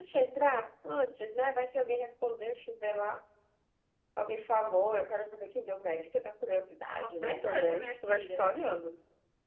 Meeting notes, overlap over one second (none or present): present